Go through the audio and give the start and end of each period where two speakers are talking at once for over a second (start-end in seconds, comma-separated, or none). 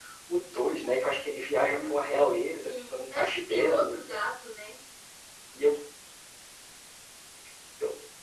1.6-3.9